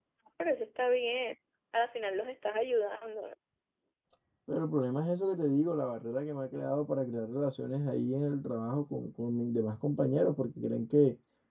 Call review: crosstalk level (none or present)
none